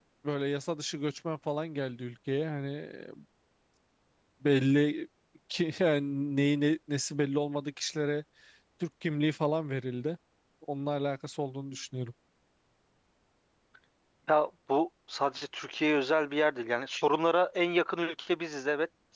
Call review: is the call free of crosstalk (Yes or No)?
Yes